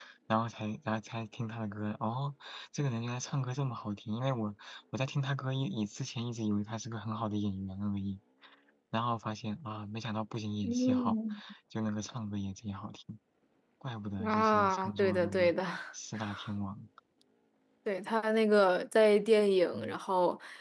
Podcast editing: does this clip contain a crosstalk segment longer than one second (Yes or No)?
Yes